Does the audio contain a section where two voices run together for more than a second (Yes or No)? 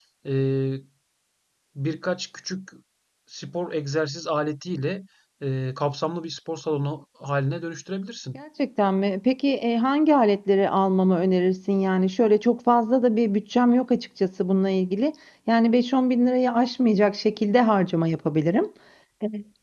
No